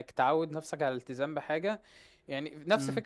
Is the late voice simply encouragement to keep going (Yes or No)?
Yes